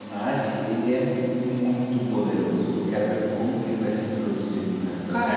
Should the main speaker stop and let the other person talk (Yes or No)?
Yes